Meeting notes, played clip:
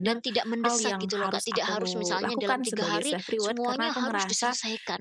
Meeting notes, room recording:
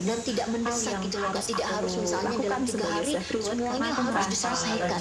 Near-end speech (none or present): present